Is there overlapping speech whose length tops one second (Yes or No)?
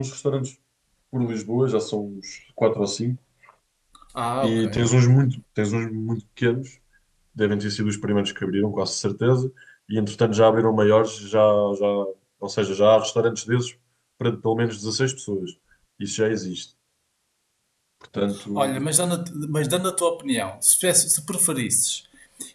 No